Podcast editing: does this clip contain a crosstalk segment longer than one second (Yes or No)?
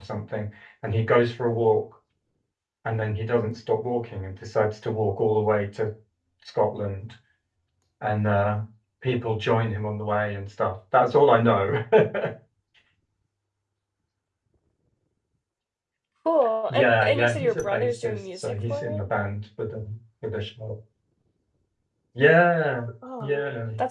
Yes